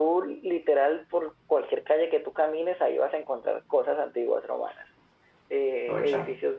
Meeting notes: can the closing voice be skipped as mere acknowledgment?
Yes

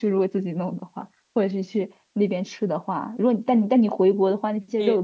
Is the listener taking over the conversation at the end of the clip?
Yes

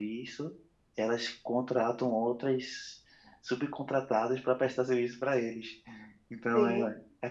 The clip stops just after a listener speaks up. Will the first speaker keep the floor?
Yes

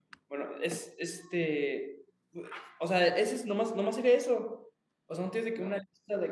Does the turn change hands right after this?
No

